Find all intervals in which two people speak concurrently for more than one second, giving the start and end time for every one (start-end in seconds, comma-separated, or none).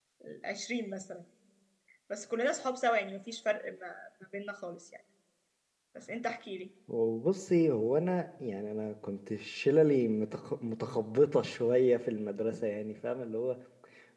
none